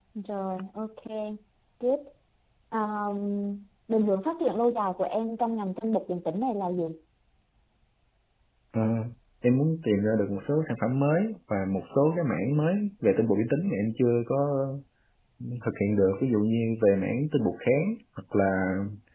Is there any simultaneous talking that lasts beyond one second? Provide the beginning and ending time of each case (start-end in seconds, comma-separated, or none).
none